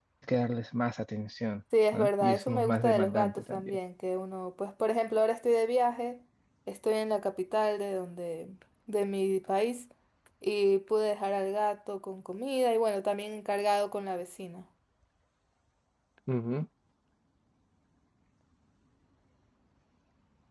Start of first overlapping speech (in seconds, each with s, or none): 1.7 s